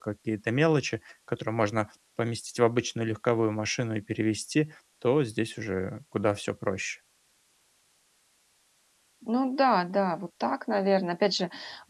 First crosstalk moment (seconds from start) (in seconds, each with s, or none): none